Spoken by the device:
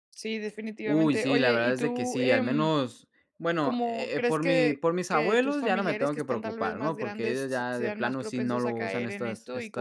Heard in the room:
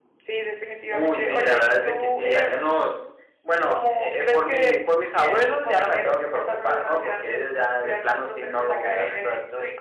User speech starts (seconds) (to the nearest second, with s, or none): none